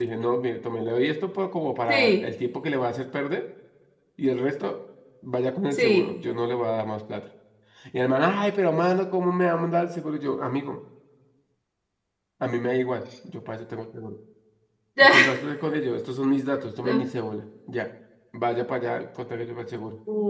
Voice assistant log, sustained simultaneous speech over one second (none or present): none